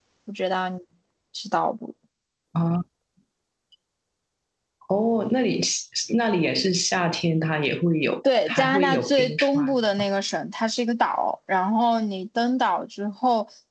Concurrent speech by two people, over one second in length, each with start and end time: 8.5-9.8

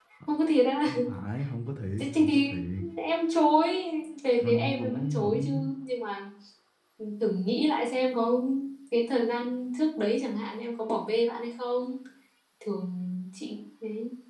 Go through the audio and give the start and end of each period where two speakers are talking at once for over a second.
4.4-5.7

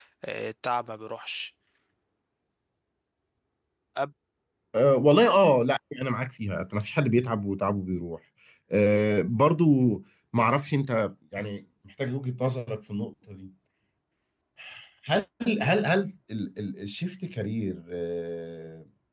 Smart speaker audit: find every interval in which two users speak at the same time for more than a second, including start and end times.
none

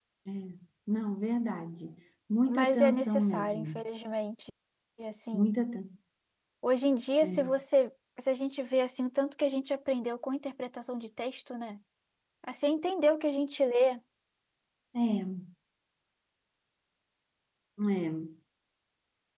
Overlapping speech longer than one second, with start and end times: 2.5-3.8

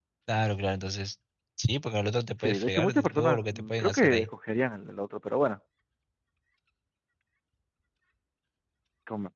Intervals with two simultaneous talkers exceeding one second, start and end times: 2.4-4.3

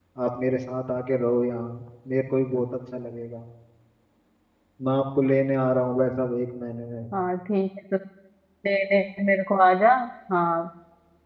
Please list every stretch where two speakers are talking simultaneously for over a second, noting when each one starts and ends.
none

